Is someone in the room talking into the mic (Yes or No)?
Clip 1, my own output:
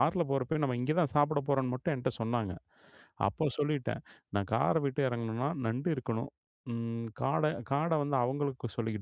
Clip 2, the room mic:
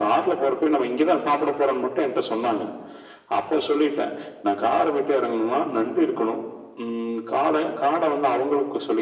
No